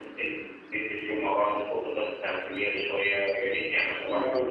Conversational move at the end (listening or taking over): taking over